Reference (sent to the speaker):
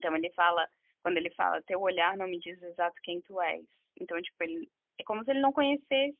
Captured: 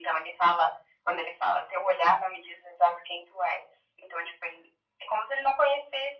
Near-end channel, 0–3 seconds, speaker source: echo only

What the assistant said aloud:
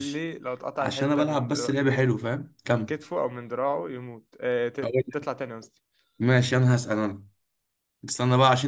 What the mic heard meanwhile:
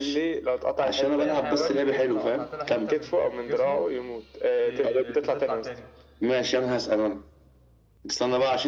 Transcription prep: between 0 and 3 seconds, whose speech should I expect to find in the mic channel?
both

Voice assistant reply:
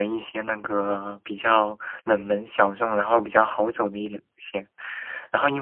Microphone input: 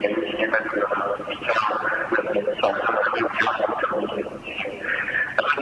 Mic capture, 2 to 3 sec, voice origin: echo only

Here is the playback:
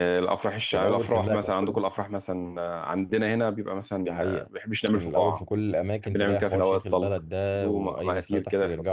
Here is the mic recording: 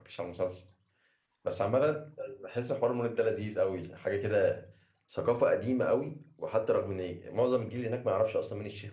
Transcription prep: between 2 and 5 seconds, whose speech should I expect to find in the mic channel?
user only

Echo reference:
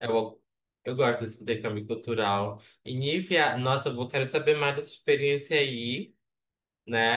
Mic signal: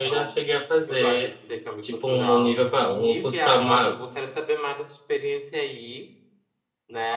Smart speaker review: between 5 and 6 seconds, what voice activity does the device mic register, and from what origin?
echo only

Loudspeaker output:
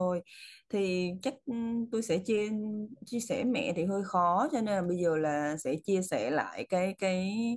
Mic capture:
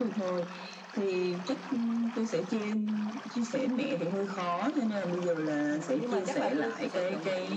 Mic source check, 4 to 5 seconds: echo only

